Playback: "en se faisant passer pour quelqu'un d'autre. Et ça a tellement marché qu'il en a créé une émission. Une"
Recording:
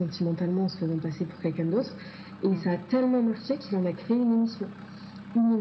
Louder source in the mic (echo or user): echo